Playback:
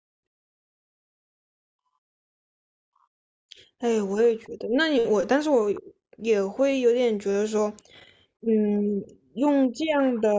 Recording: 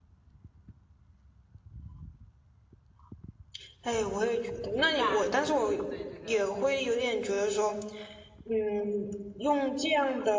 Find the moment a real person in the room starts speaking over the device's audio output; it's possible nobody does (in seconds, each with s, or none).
4.7 s